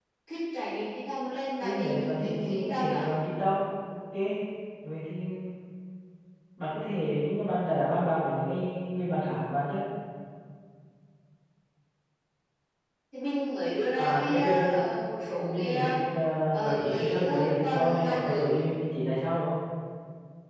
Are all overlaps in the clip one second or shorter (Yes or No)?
No